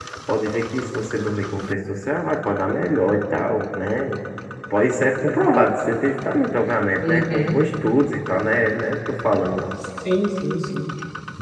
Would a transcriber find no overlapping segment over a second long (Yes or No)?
Yes